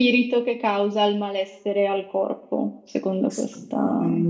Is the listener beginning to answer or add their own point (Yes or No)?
Yes